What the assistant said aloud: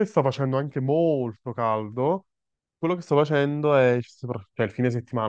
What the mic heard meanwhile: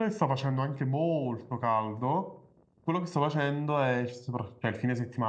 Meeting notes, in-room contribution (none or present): none